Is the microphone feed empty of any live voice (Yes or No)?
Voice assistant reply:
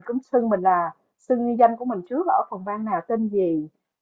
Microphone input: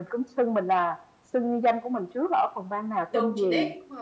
No